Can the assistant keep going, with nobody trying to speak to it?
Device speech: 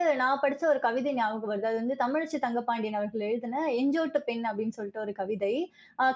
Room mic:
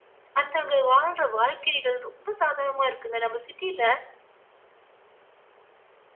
No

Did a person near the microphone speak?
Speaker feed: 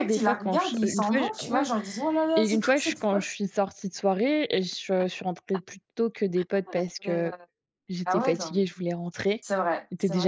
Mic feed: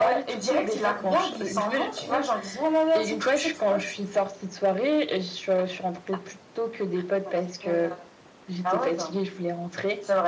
No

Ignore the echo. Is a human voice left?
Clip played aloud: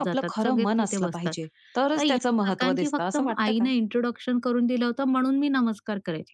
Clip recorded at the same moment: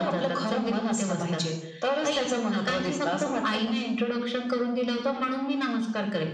No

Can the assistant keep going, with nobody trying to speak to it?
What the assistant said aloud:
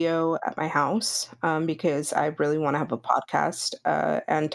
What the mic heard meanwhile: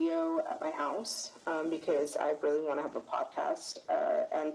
Yes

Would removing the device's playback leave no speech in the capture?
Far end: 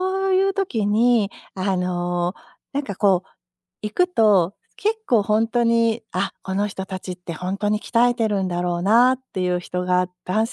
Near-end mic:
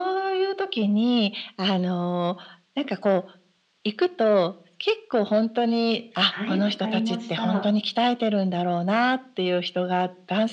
No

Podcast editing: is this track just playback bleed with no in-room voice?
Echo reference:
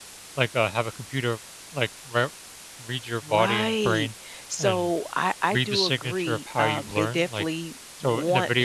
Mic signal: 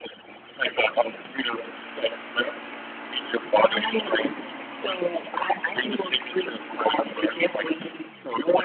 Yes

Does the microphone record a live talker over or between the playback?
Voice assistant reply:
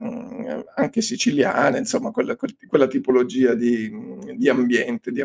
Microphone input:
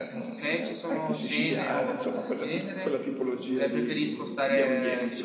Yes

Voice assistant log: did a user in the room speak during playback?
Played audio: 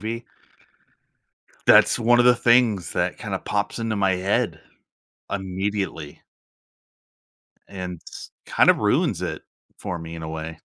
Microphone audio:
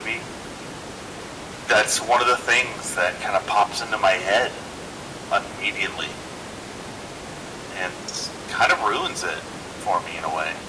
No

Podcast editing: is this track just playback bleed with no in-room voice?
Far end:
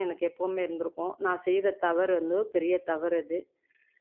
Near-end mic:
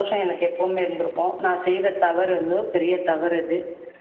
Yes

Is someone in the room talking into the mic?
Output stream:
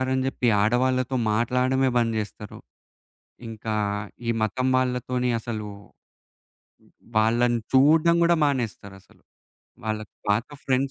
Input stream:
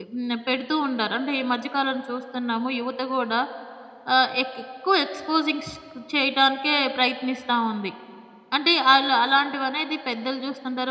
Yes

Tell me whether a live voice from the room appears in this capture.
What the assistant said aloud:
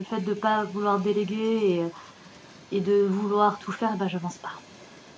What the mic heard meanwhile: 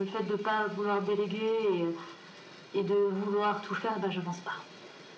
No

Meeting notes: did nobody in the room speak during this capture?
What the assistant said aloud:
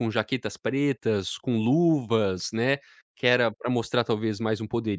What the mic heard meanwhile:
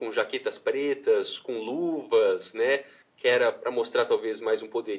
Yes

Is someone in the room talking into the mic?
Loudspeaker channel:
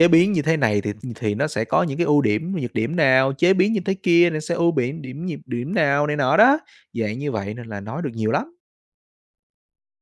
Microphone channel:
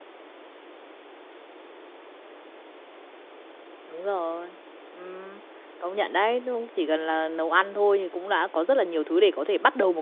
Yes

